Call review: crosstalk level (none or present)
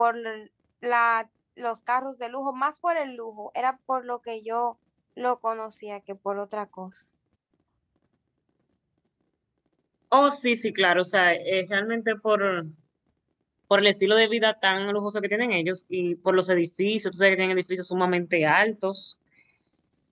none